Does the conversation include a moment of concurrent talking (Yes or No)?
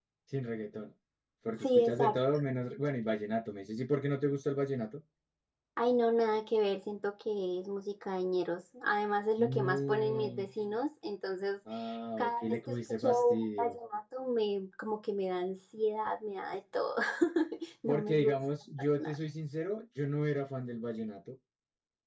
Yes